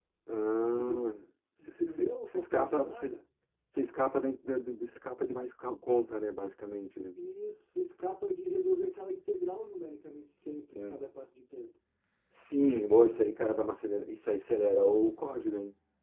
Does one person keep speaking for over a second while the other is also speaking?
Yes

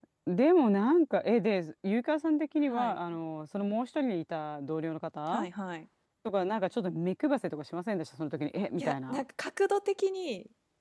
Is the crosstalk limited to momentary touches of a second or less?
Yes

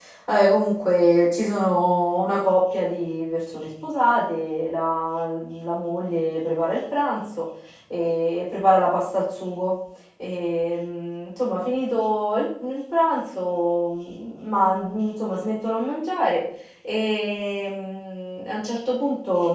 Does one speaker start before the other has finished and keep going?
No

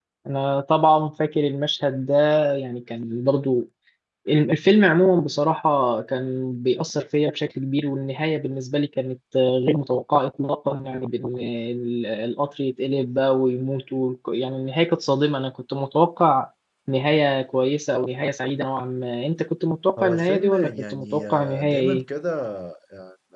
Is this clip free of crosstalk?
No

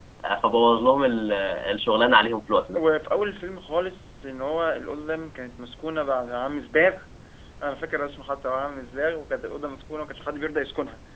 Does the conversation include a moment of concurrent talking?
No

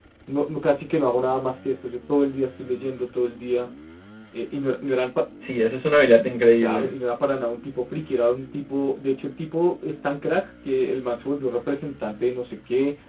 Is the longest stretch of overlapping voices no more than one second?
Yes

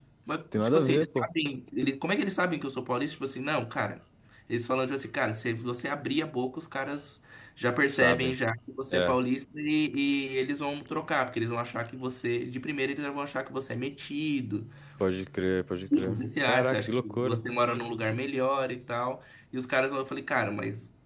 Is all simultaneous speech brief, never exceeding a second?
No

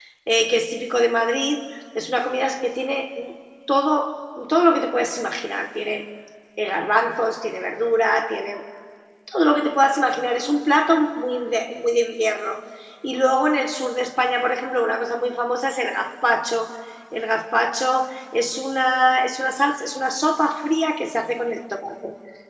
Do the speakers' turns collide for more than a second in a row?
No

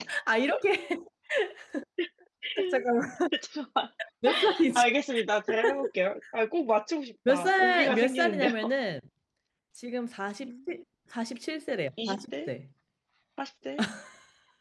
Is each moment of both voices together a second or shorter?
No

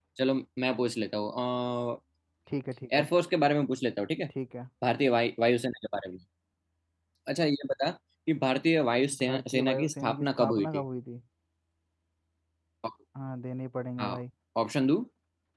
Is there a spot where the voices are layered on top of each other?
Yes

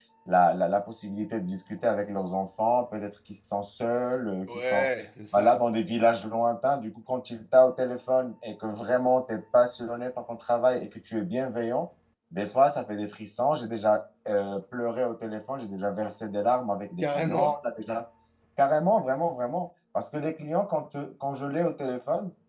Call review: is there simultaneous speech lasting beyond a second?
No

